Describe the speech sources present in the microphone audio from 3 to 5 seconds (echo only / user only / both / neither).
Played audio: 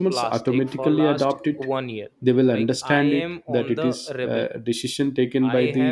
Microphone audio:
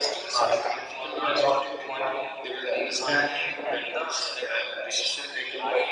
echo only